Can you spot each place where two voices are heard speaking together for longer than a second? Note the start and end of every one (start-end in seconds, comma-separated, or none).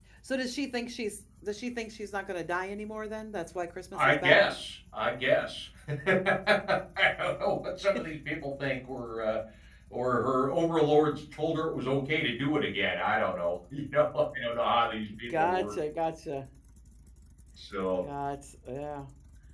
none